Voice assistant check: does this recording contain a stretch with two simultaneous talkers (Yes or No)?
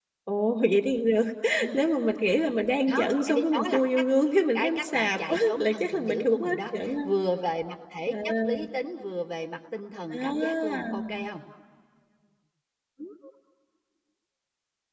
Yes